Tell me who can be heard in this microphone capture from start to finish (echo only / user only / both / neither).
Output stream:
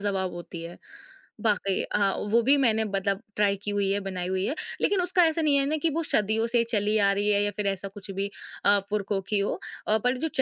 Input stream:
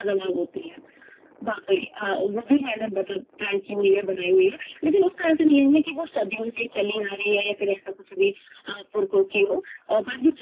echo only